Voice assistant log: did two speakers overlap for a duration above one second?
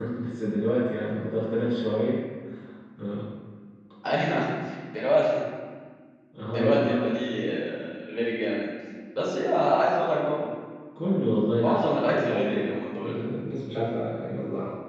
Yes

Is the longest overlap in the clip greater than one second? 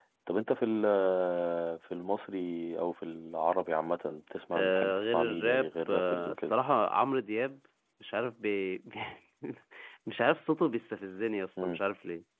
Yes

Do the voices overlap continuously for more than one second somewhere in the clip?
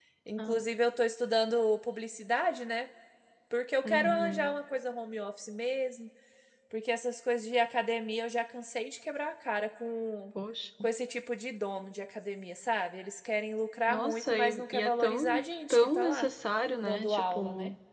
Yes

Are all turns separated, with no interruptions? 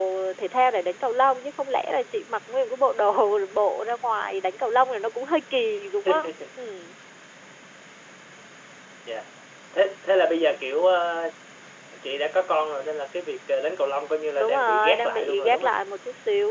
No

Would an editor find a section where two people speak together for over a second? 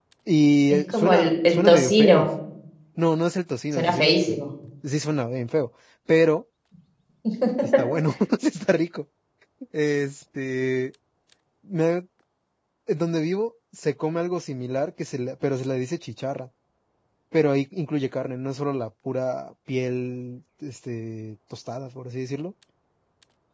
Yes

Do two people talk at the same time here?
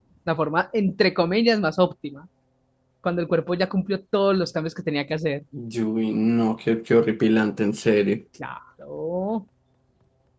No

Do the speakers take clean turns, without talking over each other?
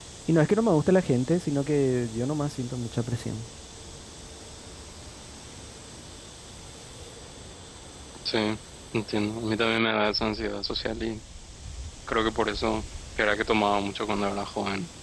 Yes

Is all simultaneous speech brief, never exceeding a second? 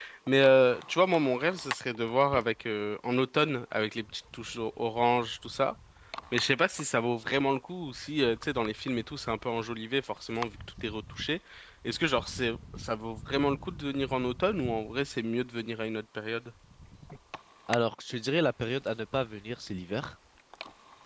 Yes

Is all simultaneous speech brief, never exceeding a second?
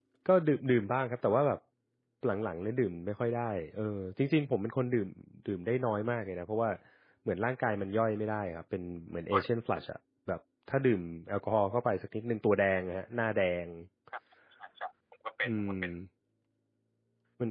Yes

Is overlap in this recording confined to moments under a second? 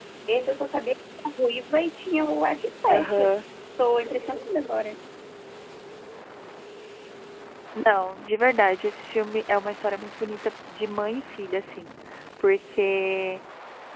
Yes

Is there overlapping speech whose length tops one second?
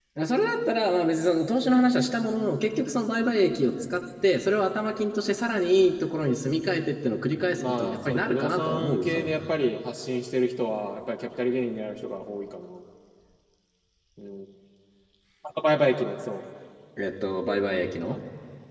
Yes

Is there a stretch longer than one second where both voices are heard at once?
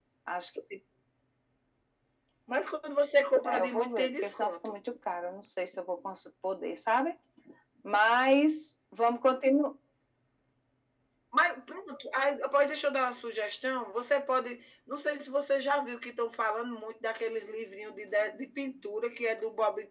Yes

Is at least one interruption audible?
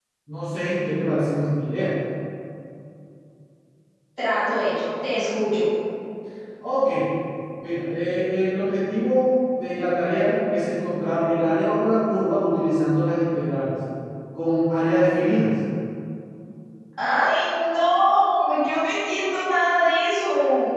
No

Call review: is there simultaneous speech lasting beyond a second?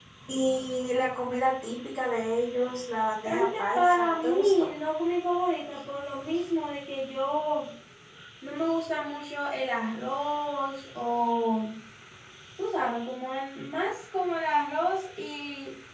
Yes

